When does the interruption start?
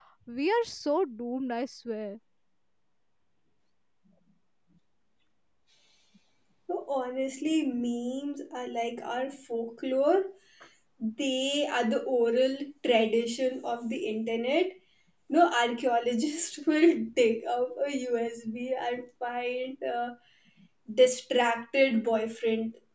none

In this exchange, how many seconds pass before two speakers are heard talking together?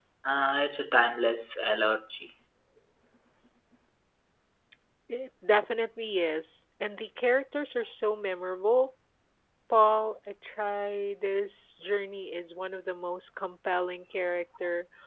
none

